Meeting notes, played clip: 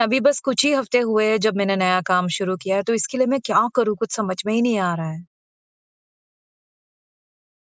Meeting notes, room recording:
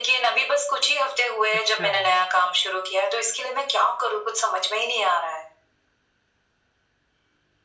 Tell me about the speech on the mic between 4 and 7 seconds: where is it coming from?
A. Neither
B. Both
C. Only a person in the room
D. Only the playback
D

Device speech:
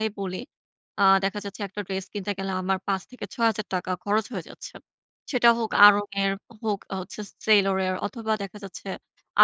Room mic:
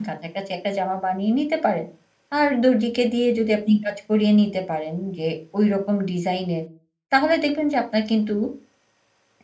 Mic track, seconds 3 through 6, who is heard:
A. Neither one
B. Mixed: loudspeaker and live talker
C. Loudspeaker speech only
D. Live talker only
D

